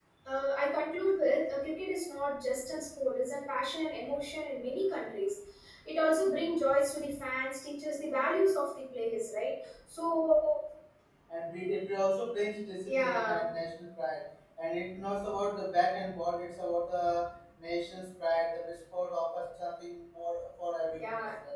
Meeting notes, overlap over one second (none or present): none